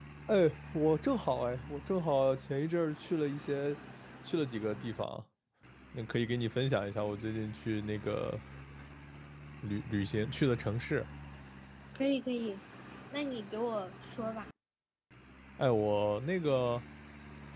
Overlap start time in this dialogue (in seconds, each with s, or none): none